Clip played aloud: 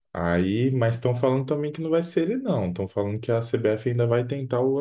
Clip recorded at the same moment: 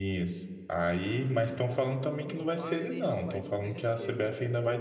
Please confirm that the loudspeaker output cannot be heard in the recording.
No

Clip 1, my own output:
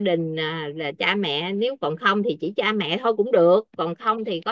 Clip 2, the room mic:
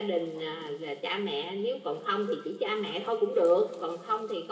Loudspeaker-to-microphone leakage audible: Yes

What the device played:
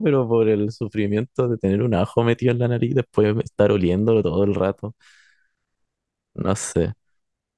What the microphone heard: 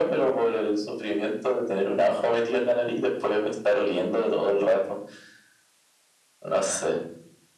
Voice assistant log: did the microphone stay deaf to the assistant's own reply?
No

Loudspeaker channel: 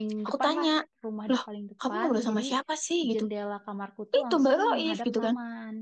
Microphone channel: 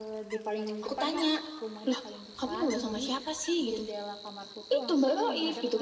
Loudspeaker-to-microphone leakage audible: Yes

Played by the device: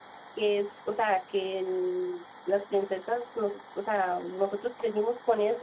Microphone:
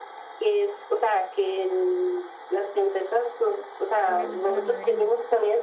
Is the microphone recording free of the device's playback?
No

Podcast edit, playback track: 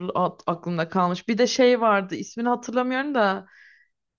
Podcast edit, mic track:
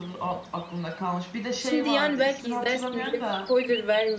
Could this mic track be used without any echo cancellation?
No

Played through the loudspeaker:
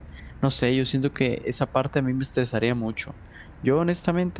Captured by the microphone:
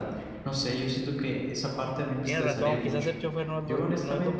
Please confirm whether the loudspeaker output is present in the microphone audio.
Yes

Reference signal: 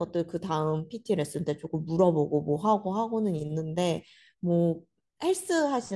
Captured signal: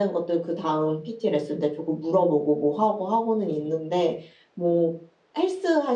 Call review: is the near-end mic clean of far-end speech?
No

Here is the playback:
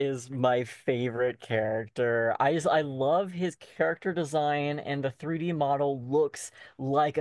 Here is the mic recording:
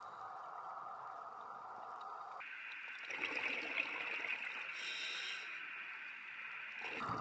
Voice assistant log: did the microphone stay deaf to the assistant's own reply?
Yes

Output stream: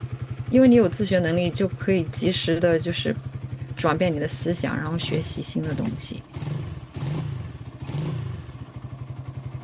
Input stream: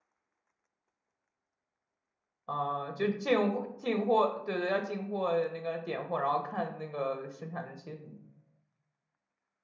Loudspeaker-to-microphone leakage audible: No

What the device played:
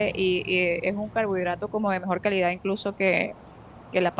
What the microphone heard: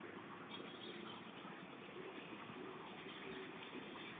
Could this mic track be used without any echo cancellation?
Yes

